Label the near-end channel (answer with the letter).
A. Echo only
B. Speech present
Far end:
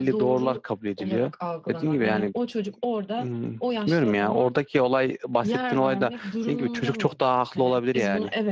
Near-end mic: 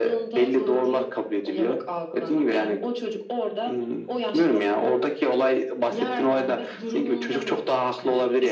A